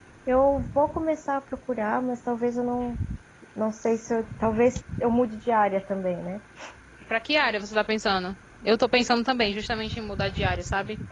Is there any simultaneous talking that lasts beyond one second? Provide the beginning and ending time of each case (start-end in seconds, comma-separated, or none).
none